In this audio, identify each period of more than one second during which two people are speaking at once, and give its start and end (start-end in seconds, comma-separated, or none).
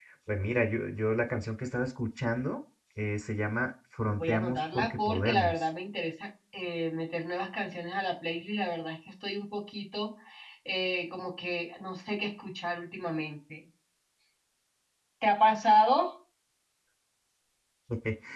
4.2-5.5